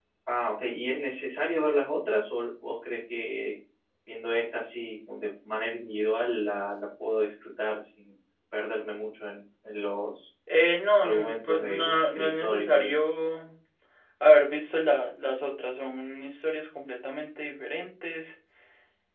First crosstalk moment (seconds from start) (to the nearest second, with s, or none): 11 s